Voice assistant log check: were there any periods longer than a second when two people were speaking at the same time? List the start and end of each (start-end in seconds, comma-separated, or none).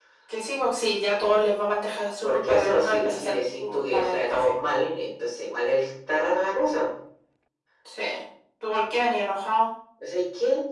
2.2-4.5